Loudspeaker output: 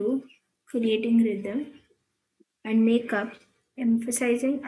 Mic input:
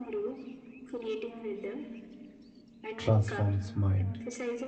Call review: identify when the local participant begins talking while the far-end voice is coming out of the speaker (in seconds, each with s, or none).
3.0 s